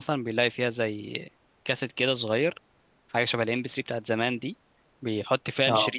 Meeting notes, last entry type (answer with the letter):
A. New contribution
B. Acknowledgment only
B